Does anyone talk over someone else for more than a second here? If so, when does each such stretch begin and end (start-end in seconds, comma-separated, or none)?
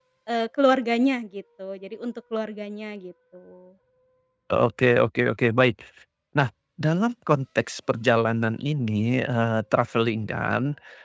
none